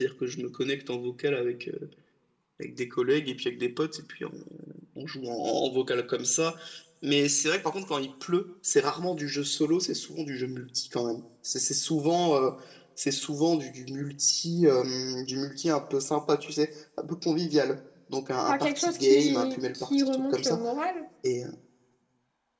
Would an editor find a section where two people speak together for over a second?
Yes, from 18.5 s

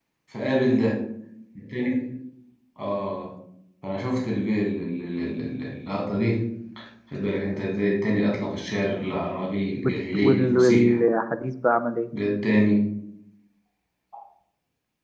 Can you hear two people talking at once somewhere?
Yes, from 9.8 s

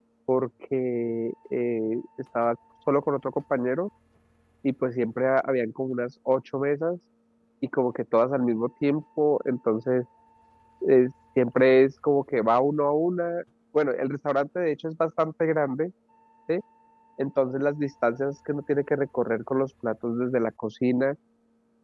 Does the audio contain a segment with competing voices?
No

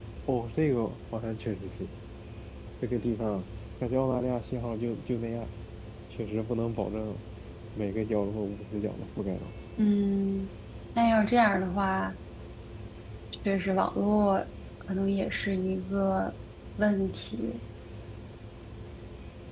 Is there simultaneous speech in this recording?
No

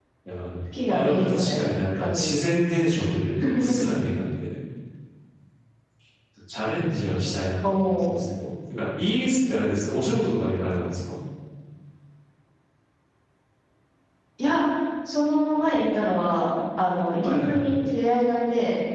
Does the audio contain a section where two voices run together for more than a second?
Yes, from 0.9 s

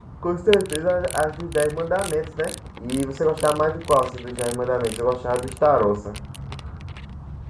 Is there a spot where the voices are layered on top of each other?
No

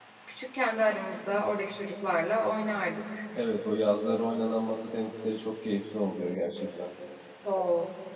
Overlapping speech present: No

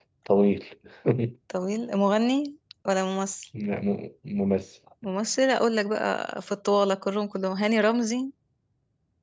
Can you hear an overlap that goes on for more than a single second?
No

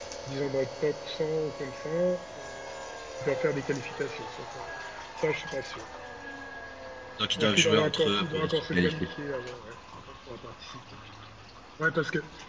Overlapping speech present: Yes, from 7.4 s

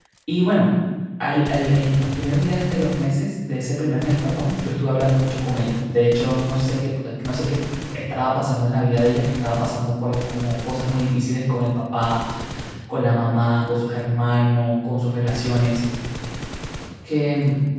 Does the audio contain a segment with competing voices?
No

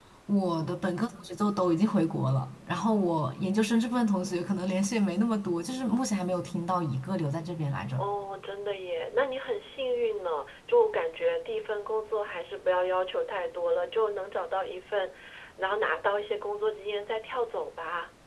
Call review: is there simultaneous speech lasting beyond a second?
No

